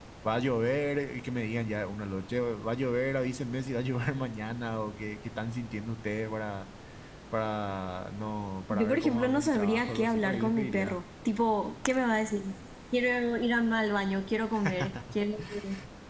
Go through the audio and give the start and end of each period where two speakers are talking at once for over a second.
8.7-11.0

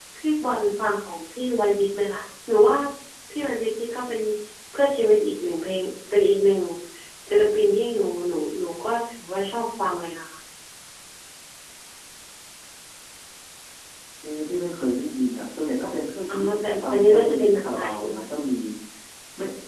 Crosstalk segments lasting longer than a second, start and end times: 16.3-18.2

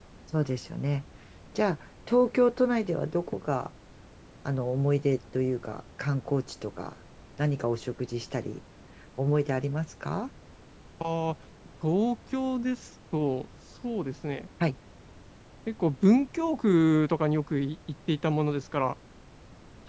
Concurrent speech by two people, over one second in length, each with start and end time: none

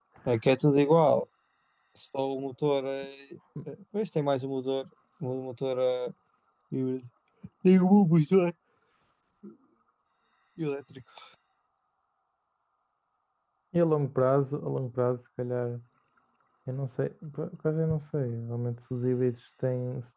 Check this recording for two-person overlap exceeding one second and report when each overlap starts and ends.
none

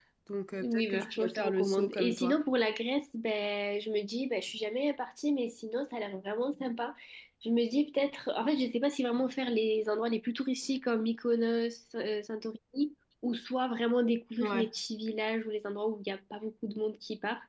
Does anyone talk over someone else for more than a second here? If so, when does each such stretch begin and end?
0.6-2.4

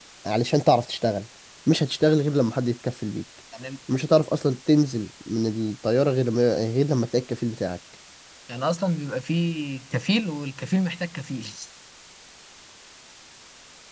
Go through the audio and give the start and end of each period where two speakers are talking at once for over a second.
none

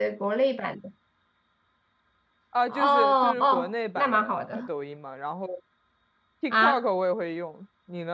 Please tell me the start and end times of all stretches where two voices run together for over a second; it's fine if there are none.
2.7-4.7

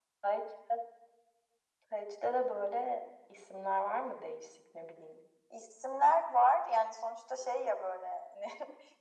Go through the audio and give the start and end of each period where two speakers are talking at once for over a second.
none

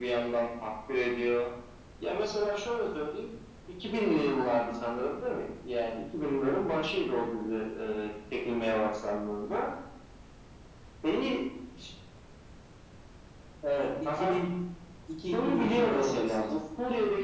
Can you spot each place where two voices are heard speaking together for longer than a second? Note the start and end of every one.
15.3-16.6

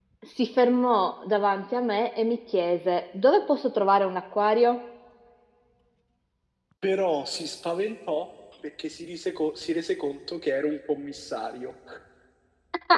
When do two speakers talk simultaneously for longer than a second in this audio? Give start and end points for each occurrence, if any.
none

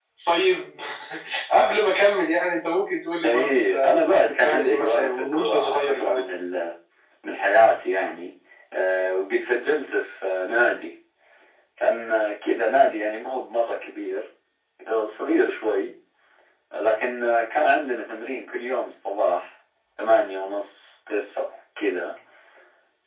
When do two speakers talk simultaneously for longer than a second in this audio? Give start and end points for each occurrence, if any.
3.2-6.2

